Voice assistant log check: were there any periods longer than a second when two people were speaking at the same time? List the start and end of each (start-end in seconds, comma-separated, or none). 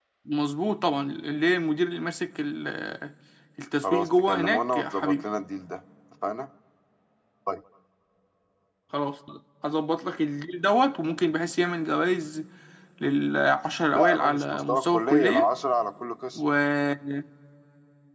3.8-5.2, 13.9-15.5